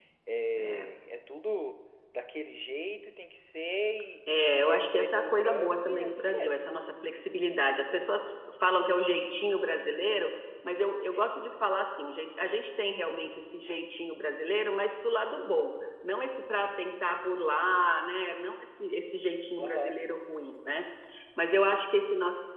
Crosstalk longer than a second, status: present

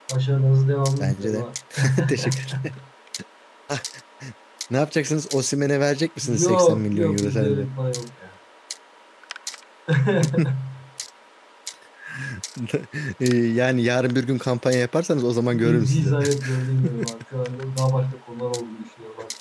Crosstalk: present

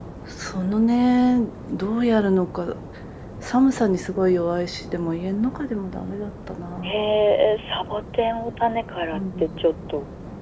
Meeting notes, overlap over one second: none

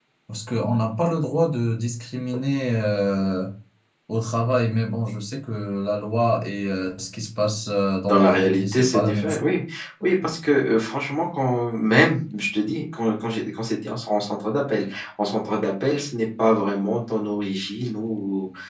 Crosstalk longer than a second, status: present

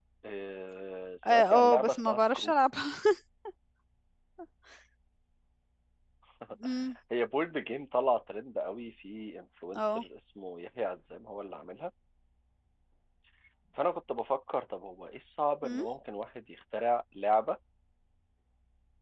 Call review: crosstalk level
present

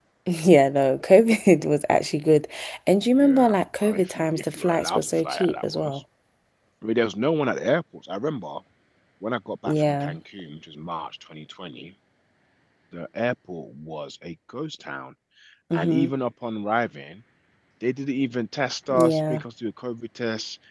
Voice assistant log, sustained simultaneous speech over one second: present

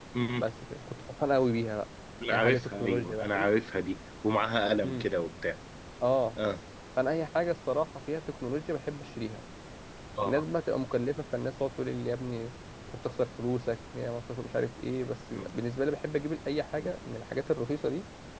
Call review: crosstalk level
present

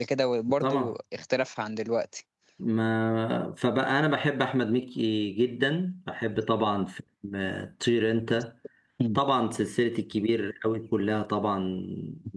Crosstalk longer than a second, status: none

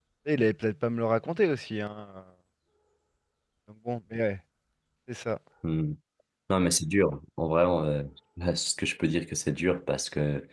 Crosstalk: none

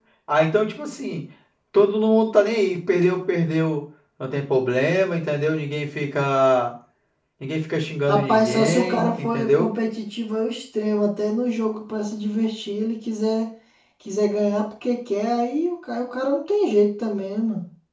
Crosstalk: present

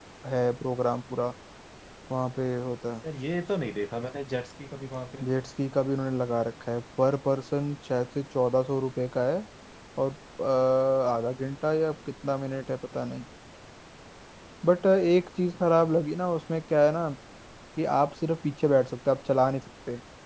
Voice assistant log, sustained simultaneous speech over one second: none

